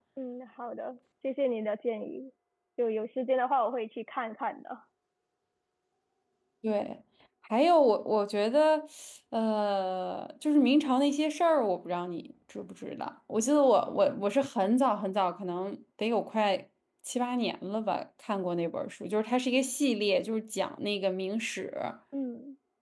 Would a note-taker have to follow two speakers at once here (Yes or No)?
No